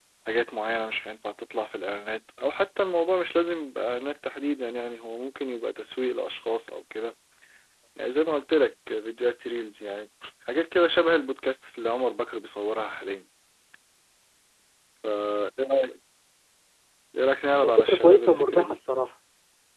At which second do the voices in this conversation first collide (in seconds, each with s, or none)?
17.6 s